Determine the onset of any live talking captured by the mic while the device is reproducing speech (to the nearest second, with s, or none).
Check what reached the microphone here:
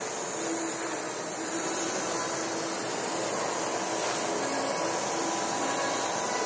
none